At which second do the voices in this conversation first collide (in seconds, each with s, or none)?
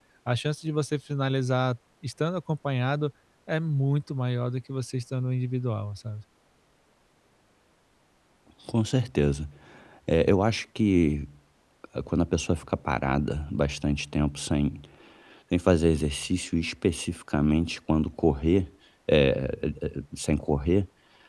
none